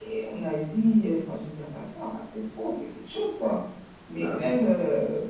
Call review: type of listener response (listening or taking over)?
listening